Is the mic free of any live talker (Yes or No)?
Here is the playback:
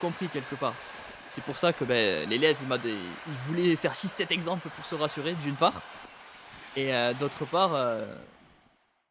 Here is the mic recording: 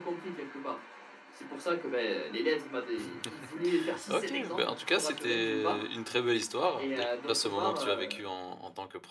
No